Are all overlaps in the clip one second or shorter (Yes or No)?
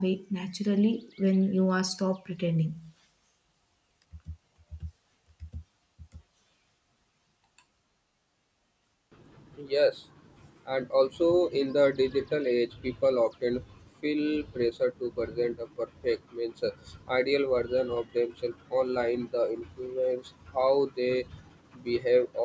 Yes